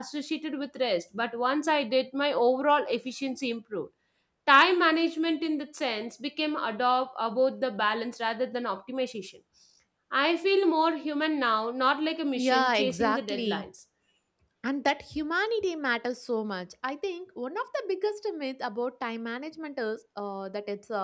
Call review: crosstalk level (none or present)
present